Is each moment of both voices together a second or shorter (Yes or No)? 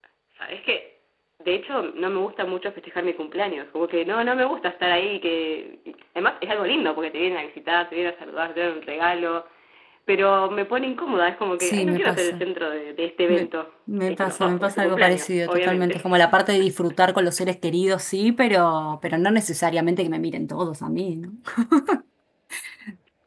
No